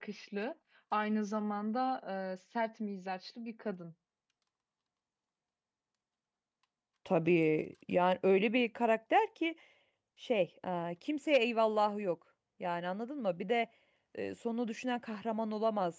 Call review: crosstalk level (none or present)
none